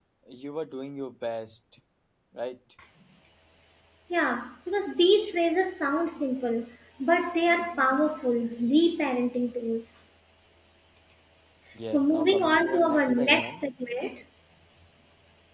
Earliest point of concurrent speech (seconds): 11.9 s

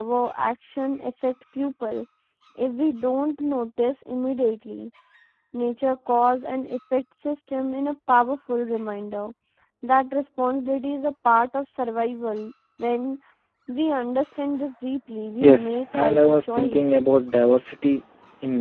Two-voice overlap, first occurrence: 15.3 s

